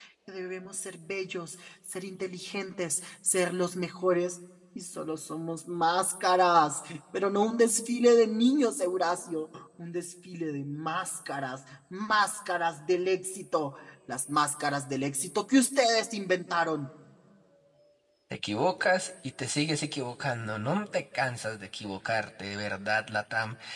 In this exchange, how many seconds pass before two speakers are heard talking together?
none

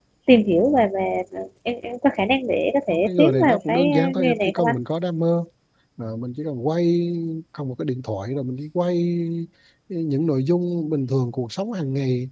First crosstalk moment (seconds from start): 3 s

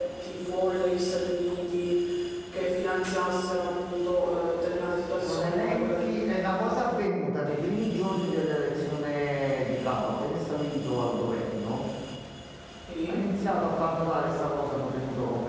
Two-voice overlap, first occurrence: 5 s

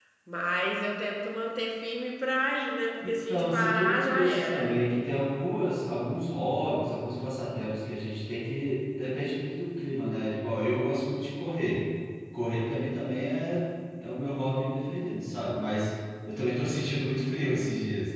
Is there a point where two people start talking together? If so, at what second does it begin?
3 s

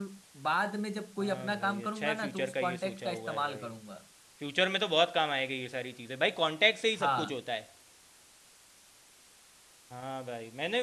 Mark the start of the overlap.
1 s

